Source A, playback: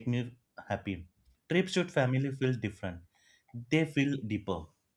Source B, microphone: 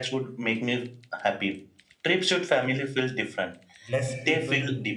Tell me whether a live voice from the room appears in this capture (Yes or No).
Yes